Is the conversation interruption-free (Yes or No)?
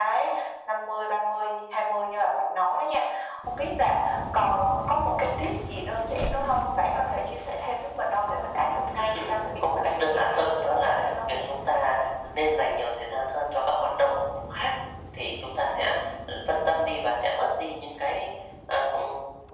No